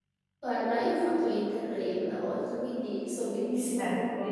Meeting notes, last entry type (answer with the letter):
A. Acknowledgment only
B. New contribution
A